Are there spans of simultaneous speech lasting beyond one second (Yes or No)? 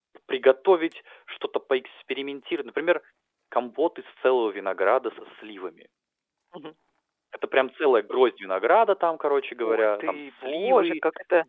Yes